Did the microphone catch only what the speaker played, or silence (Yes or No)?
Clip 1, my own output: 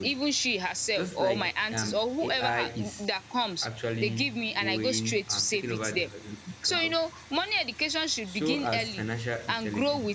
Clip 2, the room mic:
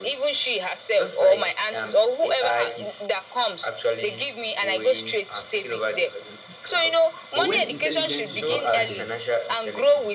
No